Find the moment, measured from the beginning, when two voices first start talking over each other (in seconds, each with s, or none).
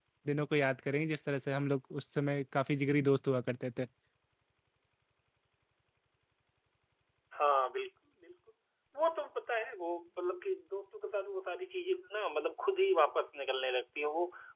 none